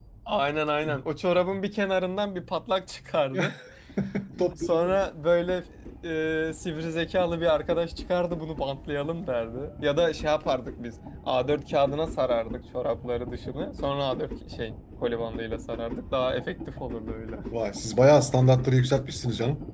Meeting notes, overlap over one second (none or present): none